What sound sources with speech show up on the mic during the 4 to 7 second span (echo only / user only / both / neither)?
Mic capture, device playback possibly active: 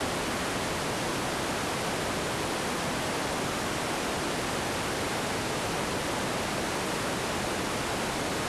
neither